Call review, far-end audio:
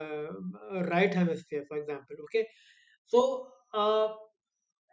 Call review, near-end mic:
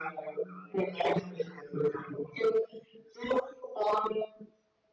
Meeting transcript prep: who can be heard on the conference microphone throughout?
echo only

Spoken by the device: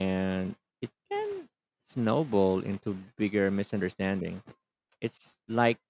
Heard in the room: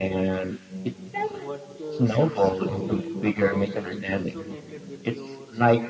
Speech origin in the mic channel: both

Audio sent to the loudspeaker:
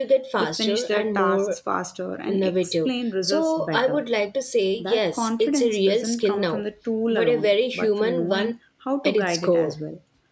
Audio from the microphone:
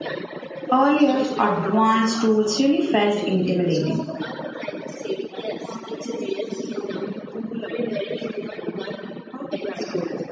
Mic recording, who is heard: both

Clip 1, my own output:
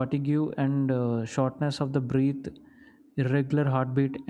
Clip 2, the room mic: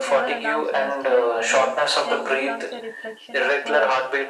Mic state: both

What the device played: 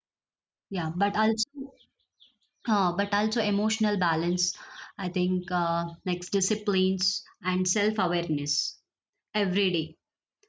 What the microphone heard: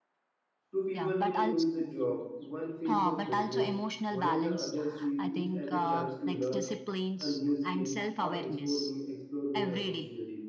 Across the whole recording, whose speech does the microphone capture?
both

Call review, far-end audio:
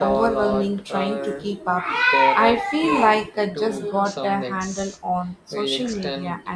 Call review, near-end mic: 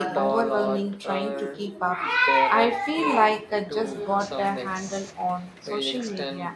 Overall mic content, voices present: echo only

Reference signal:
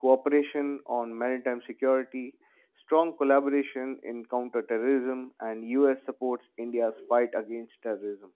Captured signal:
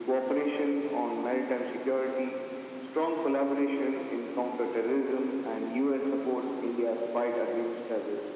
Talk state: echo only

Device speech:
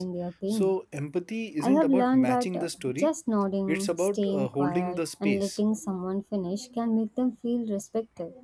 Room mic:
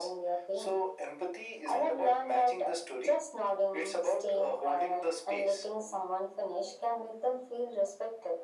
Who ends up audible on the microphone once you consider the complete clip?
echo only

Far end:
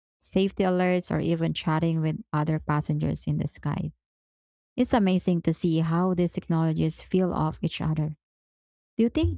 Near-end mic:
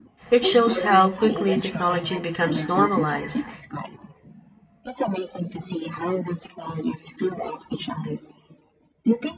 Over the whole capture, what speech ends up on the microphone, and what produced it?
both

